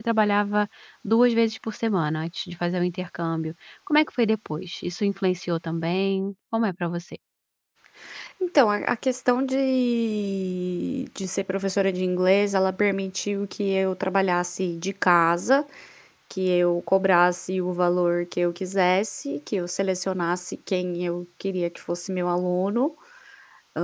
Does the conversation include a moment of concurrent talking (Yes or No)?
No